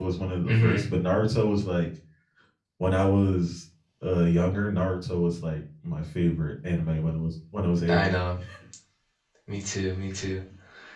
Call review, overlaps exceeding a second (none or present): none